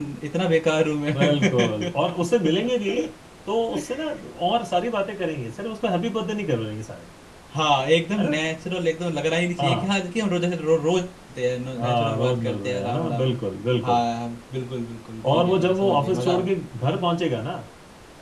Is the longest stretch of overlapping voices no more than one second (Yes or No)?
No